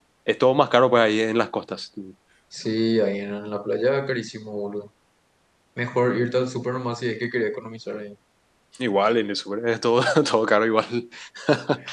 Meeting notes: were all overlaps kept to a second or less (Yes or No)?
Yes